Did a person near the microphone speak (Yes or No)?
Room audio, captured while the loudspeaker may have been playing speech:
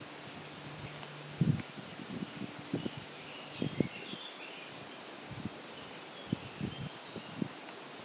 No